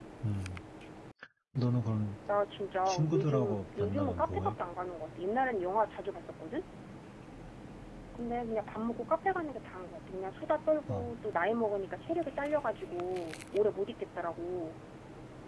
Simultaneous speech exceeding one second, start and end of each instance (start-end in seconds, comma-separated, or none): 2.9-4.6